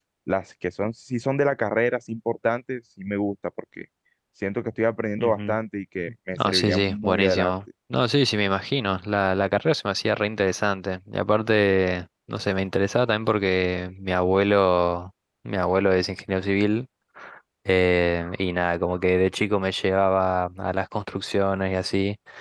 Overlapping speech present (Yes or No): Yes